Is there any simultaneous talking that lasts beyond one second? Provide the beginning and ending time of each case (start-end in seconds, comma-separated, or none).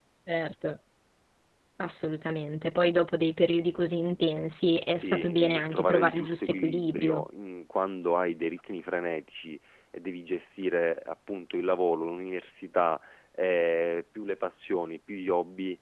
4.9-7.2